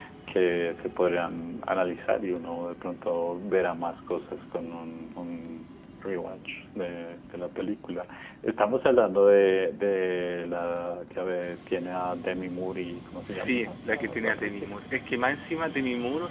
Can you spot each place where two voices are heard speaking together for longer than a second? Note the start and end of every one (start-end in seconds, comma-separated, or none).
13.3-14.7